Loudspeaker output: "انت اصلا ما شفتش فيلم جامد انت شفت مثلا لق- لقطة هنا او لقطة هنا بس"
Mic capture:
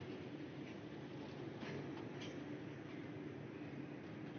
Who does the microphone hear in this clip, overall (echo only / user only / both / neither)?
neither